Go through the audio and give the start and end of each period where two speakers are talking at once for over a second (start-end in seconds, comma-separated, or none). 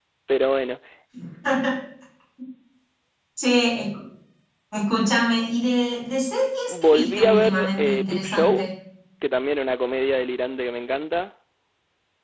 6.8-8.7